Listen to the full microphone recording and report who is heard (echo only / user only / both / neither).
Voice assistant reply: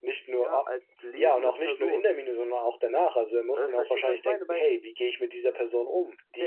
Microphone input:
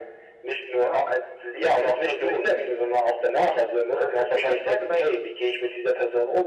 echo only